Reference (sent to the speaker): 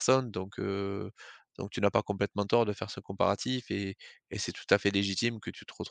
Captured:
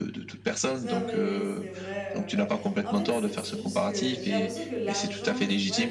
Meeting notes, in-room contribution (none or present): present